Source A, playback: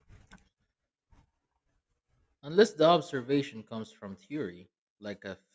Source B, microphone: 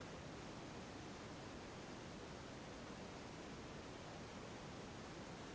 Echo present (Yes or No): No